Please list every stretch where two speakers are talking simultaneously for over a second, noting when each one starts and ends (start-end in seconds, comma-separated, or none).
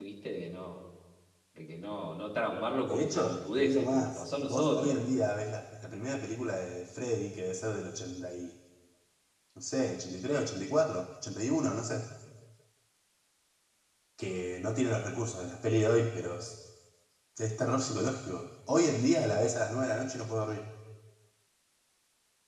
2.8-5.0